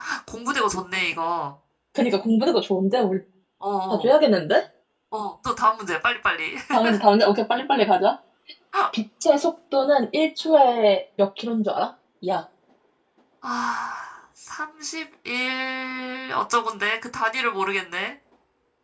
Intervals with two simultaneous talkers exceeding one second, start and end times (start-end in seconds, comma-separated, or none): none